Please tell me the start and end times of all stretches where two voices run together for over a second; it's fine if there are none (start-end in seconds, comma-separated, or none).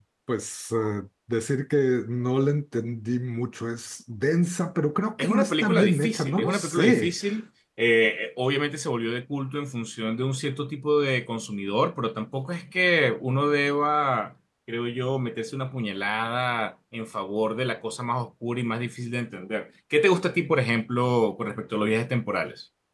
5.2-7.1